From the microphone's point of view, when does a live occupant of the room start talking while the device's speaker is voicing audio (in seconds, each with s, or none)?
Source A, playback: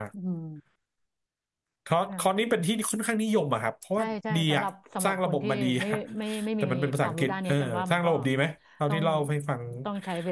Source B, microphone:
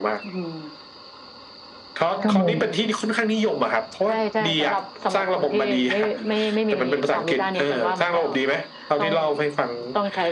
2.2 s